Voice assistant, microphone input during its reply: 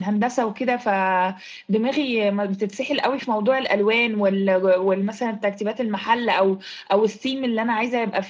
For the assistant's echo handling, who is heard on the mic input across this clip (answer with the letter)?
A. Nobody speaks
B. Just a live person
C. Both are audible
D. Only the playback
D